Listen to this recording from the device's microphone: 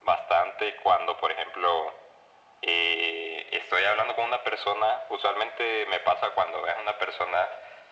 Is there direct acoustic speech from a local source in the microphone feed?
No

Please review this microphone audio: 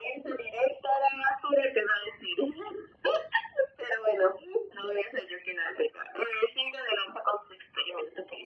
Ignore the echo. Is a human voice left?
No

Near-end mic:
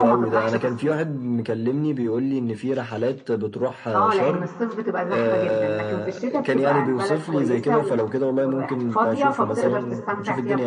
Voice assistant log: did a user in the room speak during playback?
Yes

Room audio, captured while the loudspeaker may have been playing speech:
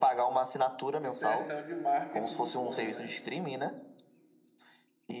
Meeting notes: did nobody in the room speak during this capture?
No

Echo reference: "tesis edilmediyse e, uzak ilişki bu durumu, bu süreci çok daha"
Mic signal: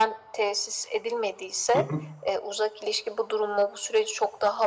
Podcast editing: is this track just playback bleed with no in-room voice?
No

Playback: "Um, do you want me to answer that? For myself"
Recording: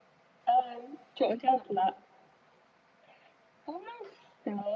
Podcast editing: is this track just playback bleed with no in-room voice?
Yes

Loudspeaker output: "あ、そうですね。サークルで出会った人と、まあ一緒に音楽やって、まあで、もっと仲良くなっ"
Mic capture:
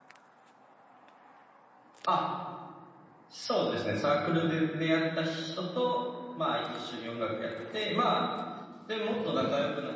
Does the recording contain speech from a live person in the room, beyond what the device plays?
No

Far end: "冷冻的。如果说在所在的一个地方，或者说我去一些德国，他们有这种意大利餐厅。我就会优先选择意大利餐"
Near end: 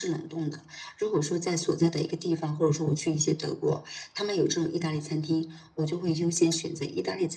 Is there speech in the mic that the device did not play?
No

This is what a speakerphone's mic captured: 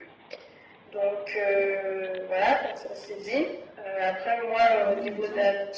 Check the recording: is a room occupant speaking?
Yes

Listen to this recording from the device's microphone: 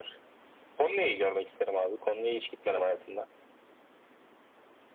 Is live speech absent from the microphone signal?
Yes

